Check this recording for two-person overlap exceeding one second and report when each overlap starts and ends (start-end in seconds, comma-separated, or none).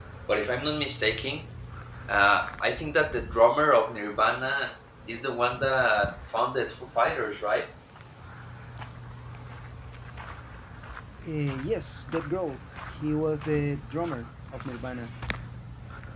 none